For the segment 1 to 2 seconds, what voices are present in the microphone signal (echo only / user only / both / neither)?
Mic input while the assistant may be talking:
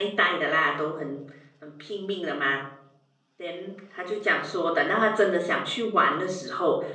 user only